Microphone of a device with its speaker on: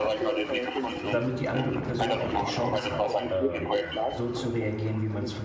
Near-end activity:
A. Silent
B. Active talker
B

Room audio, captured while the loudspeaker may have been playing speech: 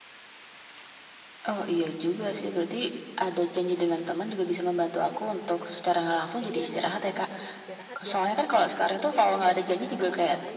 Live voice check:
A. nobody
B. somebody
B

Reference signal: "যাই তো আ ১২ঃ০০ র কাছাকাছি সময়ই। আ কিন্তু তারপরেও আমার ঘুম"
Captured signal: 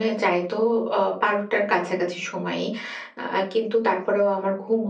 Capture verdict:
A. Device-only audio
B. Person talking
A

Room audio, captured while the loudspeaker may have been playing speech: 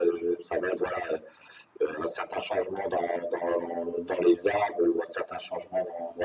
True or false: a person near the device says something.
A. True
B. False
B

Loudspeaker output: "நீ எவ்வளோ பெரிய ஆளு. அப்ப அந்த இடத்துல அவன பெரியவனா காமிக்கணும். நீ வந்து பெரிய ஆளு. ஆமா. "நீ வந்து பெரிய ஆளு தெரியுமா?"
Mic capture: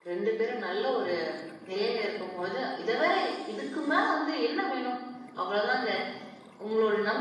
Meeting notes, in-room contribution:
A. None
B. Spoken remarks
B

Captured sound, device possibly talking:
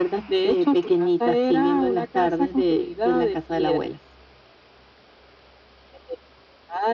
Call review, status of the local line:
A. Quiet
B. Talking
A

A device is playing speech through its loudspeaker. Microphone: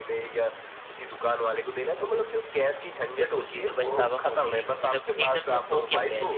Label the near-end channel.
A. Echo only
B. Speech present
B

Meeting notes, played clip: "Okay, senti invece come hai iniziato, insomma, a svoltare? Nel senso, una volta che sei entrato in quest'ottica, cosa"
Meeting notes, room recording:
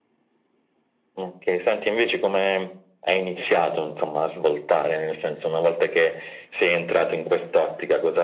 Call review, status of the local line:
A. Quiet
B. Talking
A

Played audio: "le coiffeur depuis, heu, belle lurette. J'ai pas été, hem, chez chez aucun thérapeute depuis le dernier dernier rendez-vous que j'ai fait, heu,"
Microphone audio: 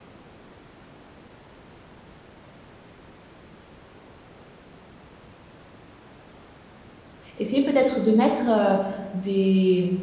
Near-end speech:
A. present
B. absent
A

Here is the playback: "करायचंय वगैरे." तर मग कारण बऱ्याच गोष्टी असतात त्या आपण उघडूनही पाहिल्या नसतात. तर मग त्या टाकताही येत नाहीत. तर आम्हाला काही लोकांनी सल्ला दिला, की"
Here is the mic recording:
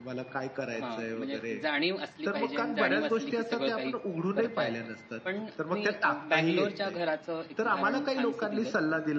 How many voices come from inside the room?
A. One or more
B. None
A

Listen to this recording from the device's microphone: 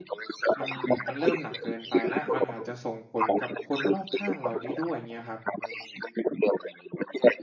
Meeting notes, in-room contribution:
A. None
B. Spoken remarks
B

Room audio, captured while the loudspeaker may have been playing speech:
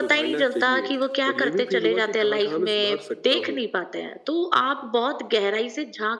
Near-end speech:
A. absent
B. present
A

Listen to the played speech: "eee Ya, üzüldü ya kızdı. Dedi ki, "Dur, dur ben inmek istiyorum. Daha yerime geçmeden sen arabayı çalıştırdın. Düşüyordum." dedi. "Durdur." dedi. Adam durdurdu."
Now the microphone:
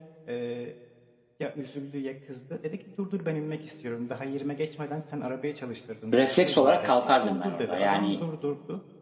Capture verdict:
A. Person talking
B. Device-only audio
A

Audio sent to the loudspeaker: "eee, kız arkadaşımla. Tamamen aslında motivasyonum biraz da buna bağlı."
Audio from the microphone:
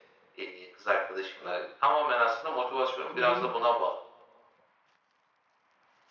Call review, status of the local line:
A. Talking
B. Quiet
A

